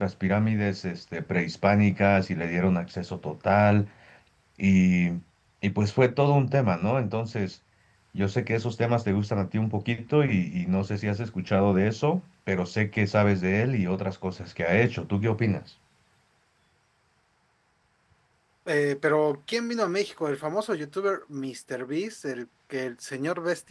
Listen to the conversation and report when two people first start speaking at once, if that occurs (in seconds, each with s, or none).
none